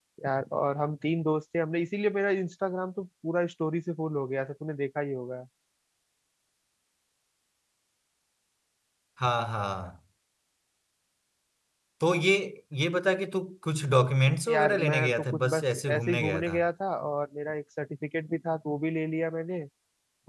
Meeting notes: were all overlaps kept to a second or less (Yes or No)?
No